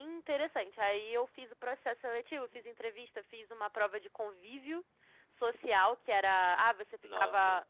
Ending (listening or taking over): listening